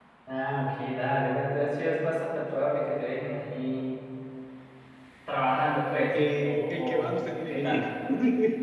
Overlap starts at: 6 s

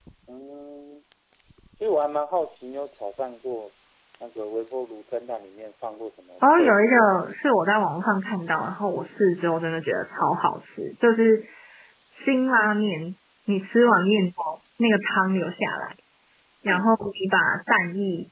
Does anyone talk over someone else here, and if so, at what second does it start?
6 s

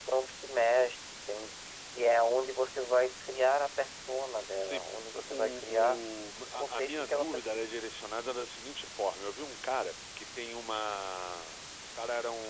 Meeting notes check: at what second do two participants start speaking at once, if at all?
5 s

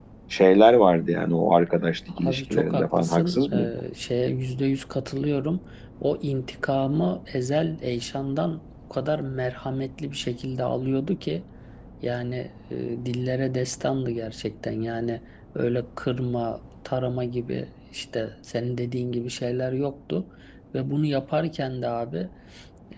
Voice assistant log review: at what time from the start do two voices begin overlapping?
2 s

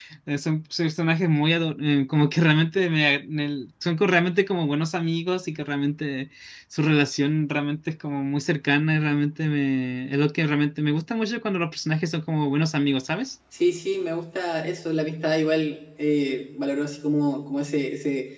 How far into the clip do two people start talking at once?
none

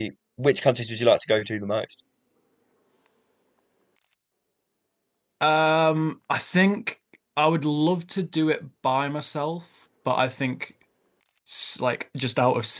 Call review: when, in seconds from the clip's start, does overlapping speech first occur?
none

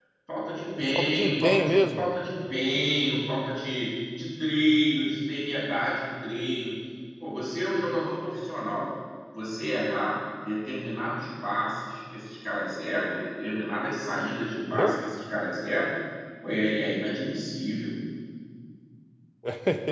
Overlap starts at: 1 s

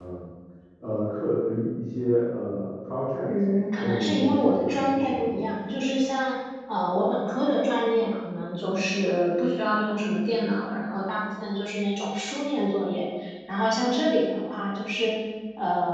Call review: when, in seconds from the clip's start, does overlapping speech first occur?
4 s

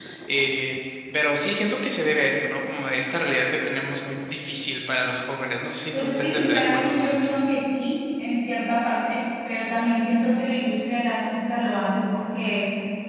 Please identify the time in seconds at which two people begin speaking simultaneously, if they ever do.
6 s

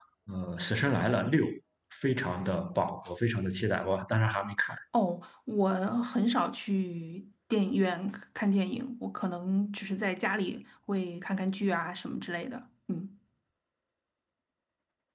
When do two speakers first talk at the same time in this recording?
none

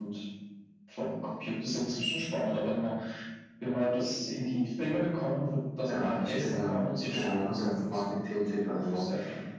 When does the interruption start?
6 s

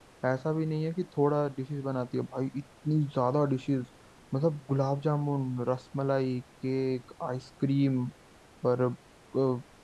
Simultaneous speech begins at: none

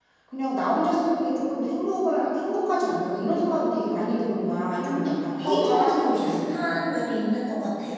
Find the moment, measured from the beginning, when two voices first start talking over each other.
5 s

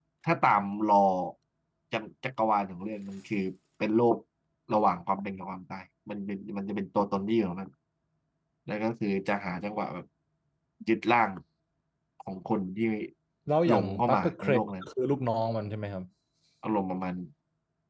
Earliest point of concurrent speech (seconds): 14 s

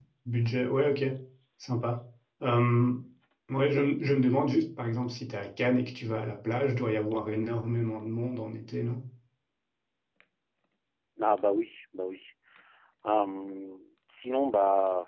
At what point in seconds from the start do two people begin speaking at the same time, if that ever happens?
none

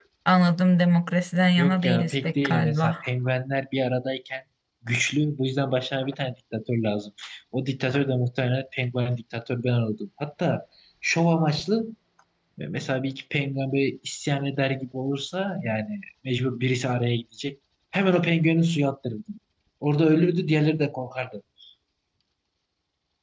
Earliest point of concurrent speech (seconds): 2 s

